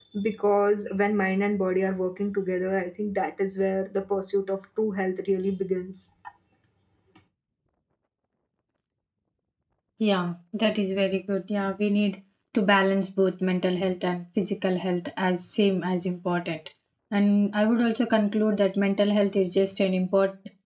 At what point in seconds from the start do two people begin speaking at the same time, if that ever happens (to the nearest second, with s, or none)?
none